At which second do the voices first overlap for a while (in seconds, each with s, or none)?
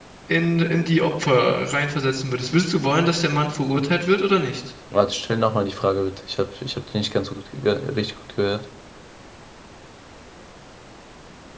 none